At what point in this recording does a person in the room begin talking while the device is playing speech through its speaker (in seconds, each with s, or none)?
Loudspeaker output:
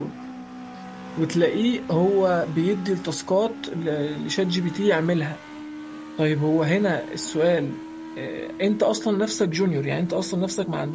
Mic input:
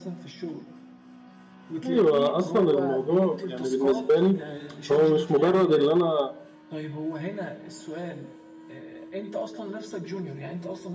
1.9 s